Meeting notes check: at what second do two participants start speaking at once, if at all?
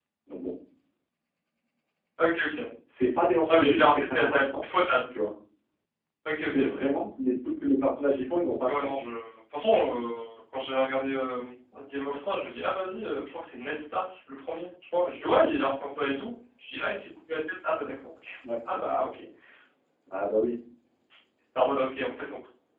3.5 s

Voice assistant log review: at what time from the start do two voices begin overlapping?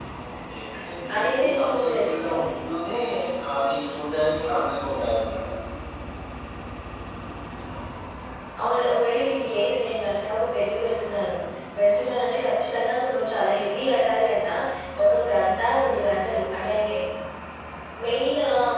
1.2 s

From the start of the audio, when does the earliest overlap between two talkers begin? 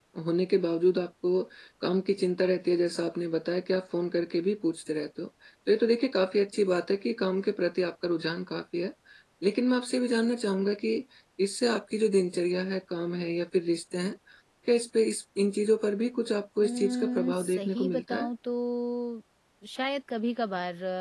16.6 s

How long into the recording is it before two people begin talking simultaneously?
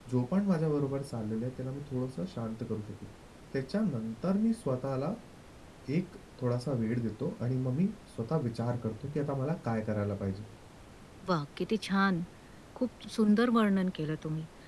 none

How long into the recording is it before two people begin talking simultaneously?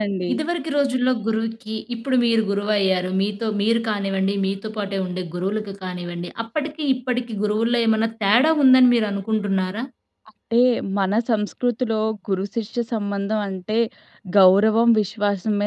none

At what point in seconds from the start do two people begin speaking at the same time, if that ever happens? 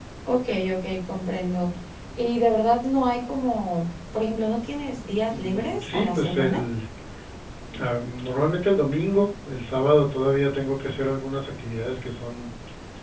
5.3 s

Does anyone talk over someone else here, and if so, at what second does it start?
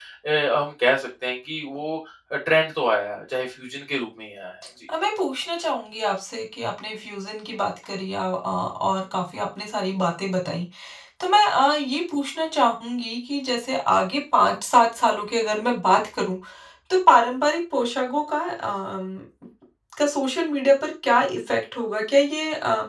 none

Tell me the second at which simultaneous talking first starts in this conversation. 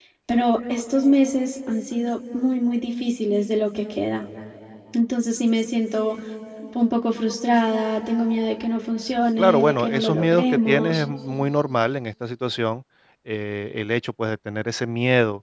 9.4 s

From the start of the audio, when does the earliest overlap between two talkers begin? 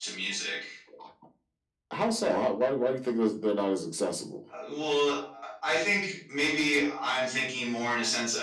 none

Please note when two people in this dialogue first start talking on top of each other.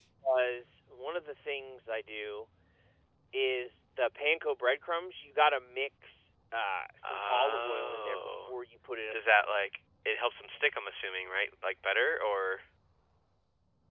7.0 s

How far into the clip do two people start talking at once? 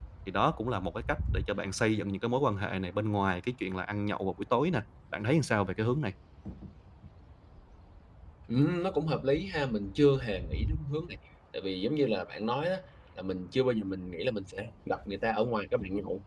none

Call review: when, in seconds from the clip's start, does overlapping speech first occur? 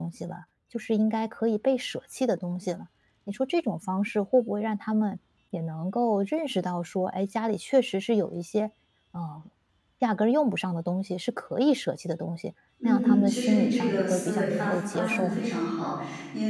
12.8 s

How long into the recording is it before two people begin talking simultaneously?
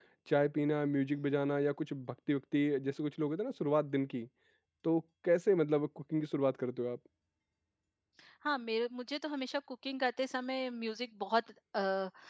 none

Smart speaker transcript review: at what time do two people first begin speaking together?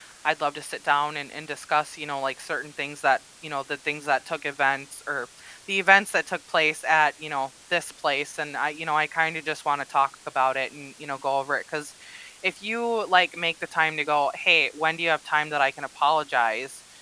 none

